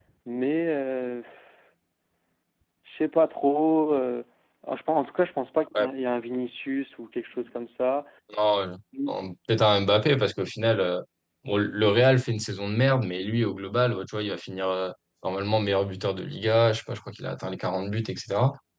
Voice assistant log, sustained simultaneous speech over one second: none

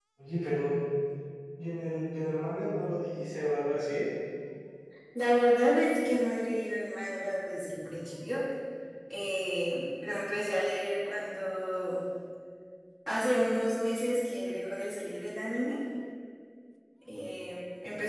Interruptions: none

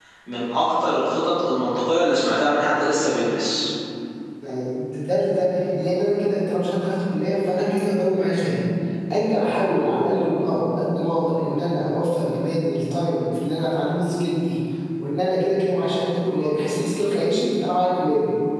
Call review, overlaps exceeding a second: none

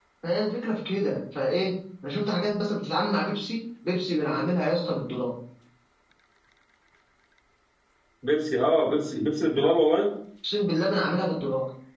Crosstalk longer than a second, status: none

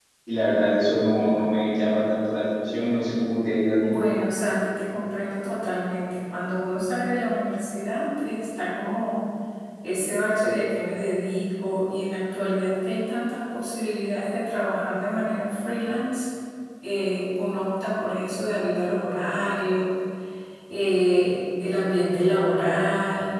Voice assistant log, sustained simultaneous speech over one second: none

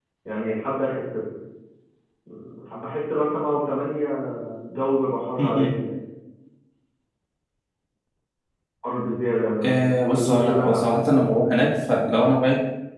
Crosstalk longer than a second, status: present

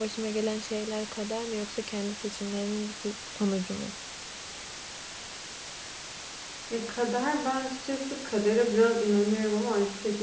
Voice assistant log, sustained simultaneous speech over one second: none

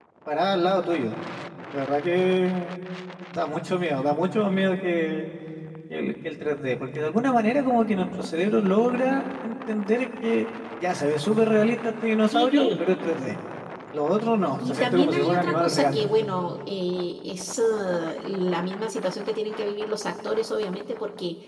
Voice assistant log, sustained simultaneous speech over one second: present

